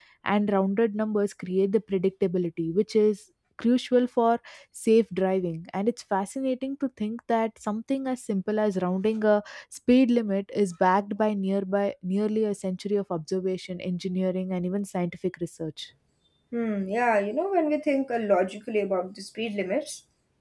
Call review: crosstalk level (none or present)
none